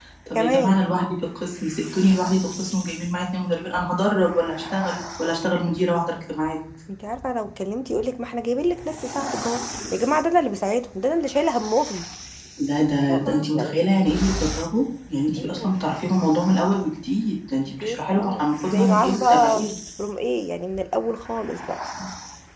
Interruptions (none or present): present